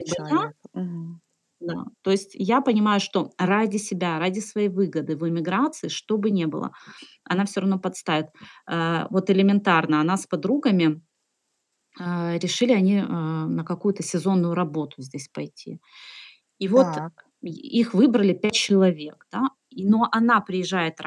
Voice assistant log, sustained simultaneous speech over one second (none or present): none